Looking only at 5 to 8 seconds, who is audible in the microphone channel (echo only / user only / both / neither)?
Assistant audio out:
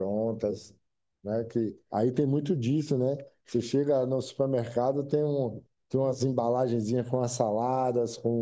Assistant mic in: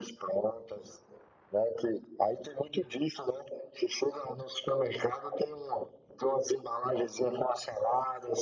echo only